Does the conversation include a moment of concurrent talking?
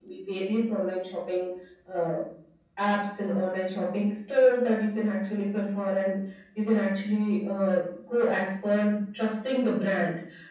No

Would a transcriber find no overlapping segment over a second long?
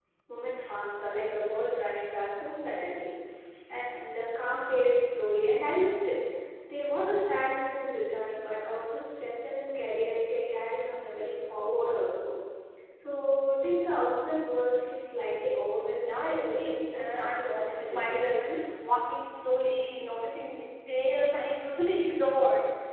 No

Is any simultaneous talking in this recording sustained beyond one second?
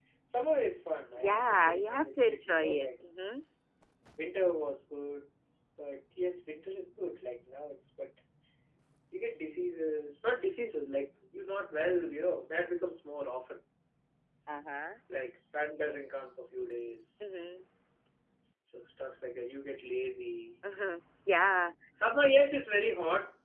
Yes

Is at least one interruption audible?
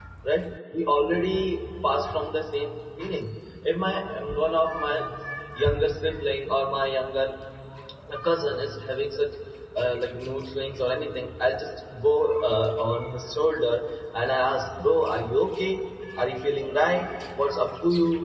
No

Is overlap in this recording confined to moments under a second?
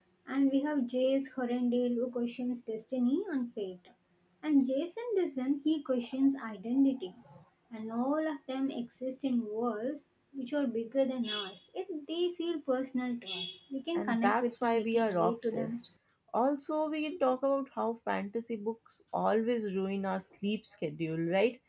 No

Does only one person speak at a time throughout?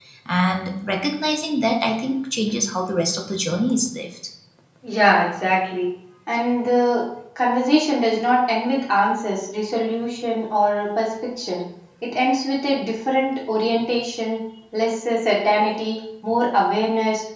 Yes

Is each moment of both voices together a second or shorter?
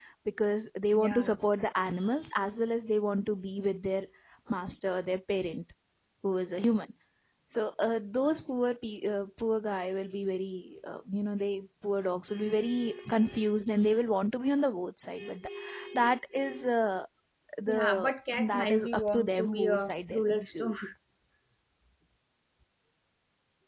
No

